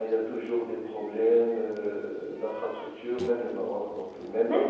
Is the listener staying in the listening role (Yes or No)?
No